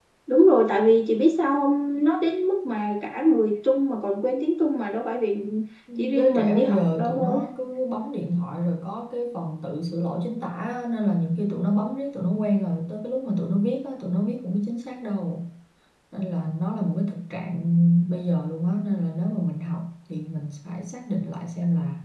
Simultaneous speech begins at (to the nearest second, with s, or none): 6 s